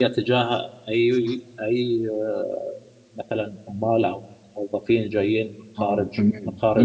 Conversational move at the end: taking over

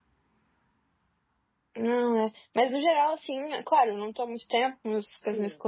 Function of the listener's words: listening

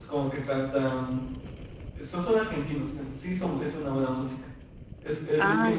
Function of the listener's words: listening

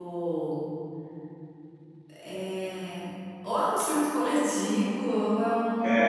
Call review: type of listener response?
taking over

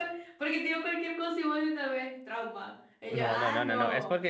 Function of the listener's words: taking over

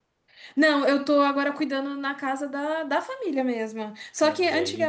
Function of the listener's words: listening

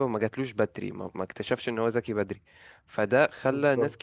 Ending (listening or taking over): listening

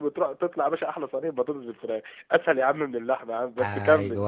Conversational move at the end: taking over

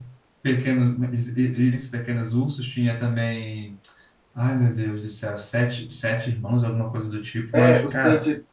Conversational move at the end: taking over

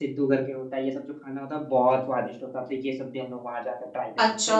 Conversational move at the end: taking over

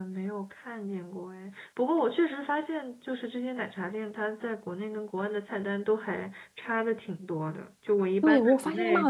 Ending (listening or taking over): taking over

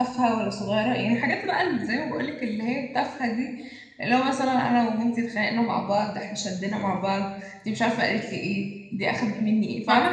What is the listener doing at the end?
listening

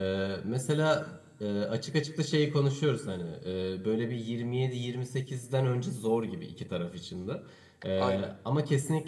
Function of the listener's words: listening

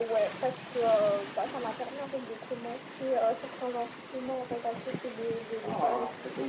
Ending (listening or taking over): taking over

